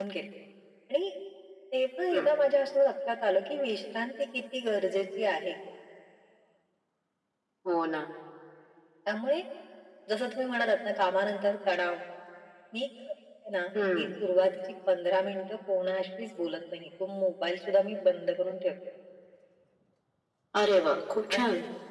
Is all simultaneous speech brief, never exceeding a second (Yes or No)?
Yes